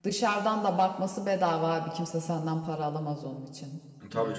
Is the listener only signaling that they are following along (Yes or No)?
No